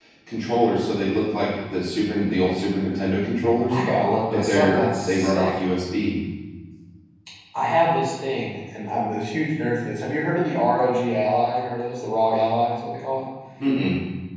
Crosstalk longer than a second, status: present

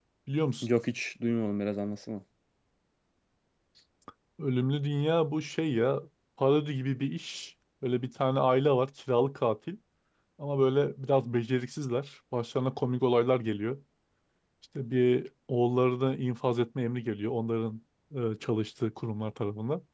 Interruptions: none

